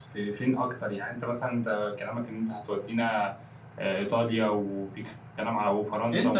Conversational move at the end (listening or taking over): taking over